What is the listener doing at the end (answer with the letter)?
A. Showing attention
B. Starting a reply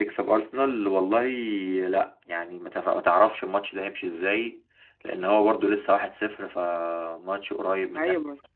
B